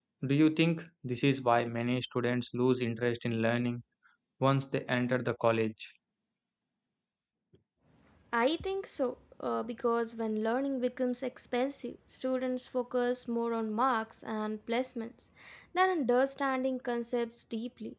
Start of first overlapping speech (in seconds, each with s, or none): none